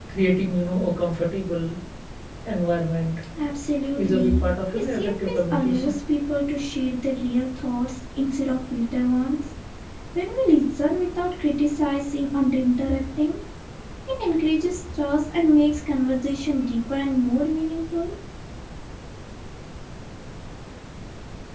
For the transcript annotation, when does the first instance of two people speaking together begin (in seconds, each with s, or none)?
4.0 s